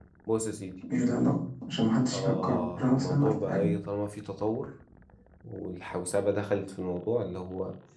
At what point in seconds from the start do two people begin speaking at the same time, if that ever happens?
2 s

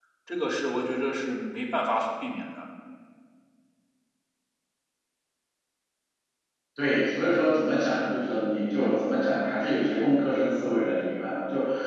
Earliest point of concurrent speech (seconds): none

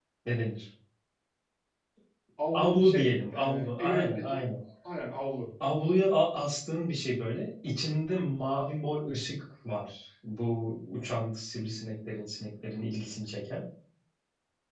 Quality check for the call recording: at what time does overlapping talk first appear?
3 s

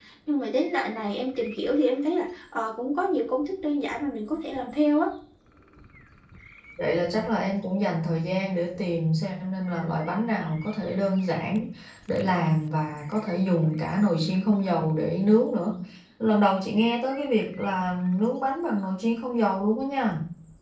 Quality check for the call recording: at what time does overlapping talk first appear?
none

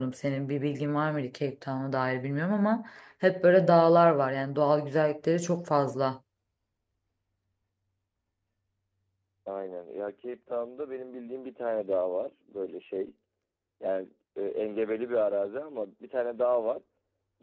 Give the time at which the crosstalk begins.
none

